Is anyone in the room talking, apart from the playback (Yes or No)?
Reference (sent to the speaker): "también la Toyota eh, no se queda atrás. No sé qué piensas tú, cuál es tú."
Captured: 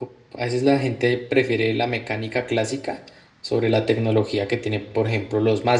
Yes